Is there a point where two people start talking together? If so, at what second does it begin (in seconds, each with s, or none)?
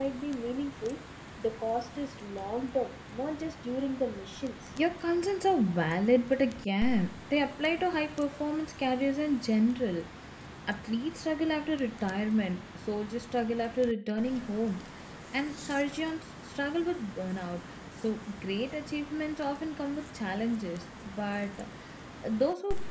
none